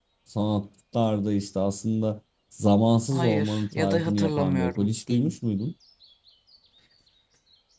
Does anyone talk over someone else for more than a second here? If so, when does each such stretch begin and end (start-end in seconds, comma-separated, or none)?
3.1-5.4